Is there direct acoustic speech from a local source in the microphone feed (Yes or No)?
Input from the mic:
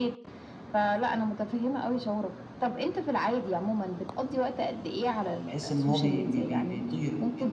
Yes